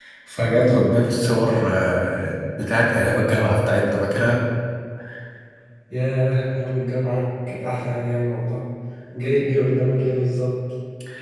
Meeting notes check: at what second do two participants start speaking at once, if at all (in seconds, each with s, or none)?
none